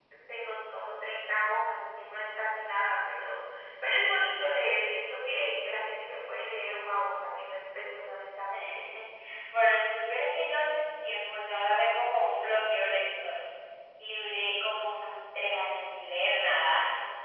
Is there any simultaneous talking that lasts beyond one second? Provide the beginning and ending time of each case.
none

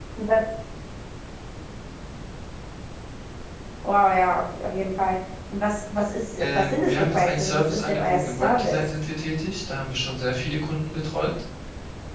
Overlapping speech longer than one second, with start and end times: 6.4-8.8

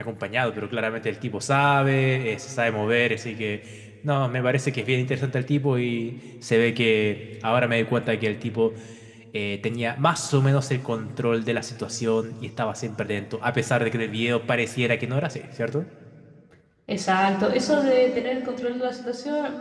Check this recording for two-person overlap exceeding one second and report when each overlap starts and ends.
none

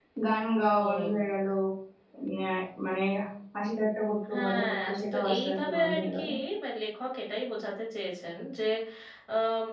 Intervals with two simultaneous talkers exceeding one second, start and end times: 4.3-6.2

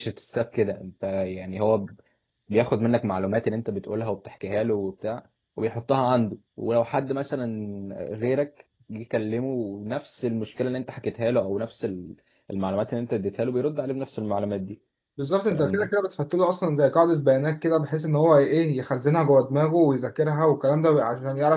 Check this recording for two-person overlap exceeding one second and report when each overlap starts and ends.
none

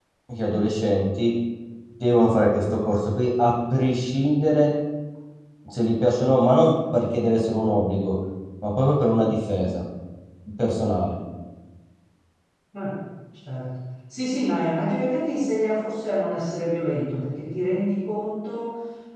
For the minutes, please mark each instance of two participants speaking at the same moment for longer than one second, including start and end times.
none

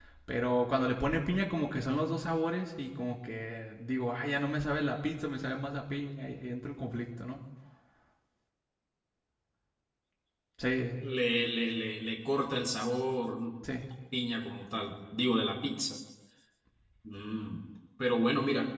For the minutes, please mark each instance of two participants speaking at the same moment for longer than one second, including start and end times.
none

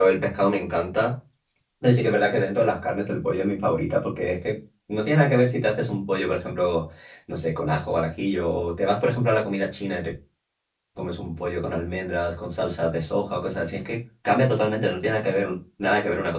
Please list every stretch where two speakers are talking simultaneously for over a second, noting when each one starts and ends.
none

